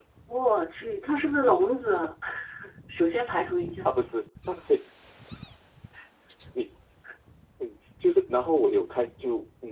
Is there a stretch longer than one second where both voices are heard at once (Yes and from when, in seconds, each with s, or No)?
No